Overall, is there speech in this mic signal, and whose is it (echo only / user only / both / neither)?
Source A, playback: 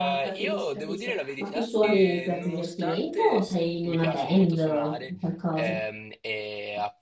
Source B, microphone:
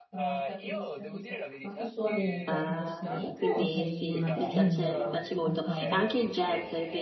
both